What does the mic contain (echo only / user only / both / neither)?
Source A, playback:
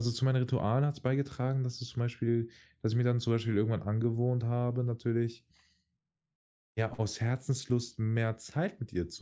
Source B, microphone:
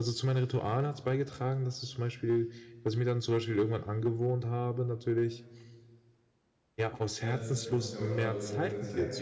both